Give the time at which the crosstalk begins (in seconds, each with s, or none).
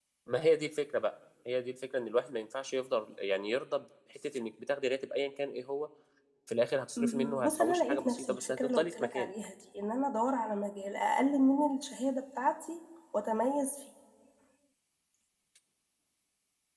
7.0 s